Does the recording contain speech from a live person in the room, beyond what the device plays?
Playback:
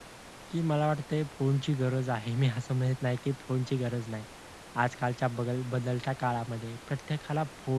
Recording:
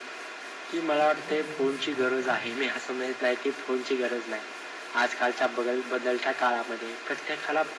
Yes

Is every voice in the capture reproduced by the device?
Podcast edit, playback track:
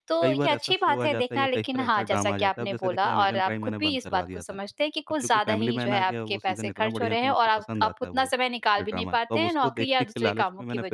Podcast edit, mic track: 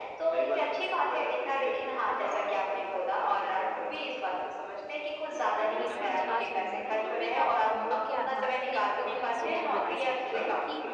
No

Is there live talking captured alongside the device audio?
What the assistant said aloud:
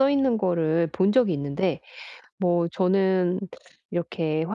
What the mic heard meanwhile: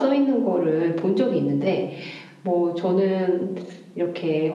No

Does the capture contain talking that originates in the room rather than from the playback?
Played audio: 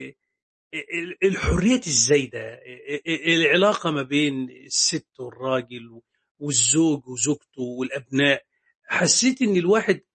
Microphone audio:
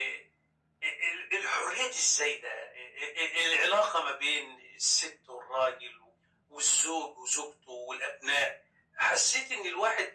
No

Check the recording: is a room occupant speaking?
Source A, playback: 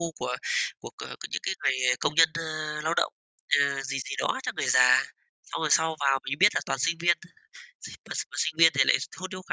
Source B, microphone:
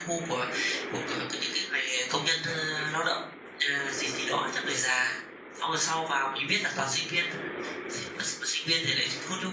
No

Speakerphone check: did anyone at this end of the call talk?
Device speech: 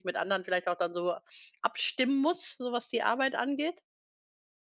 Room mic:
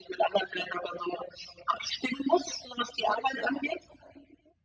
No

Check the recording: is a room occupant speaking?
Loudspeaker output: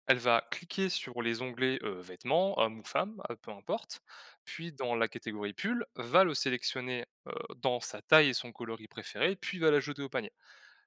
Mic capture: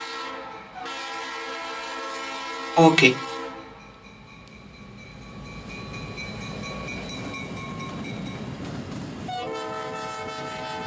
Yes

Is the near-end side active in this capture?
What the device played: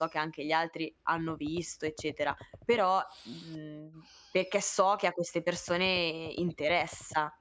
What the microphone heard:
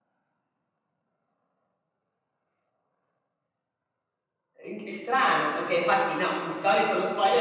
Yes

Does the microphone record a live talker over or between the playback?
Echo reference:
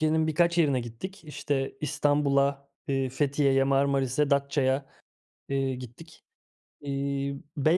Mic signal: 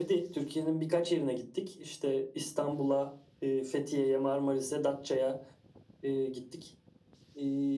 No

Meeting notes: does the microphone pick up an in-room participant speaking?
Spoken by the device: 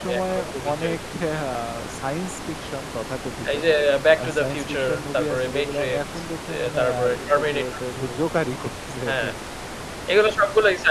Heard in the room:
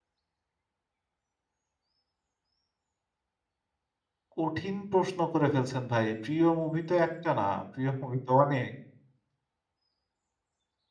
Yes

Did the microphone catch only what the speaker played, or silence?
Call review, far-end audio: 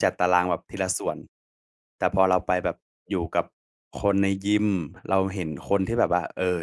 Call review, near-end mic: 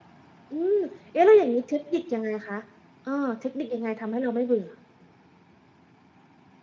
No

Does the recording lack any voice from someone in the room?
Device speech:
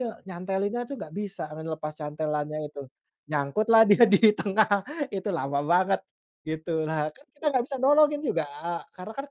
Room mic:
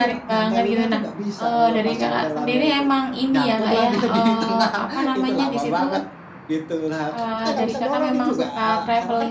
No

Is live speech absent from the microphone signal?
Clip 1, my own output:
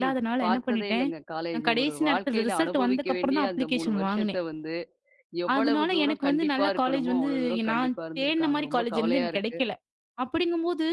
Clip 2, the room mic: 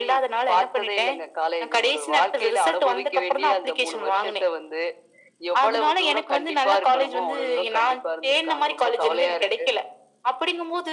Yes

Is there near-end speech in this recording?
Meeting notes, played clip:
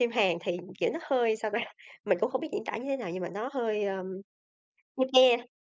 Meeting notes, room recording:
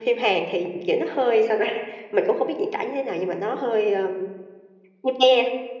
No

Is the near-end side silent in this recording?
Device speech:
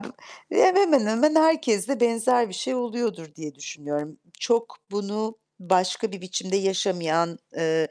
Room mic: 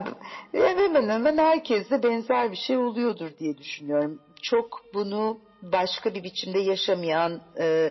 Yes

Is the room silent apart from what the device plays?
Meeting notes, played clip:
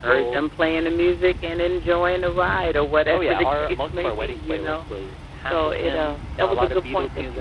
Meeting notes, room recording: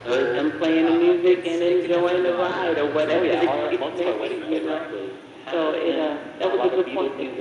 No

